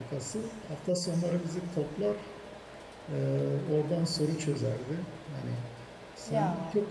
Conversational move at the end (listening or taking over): listening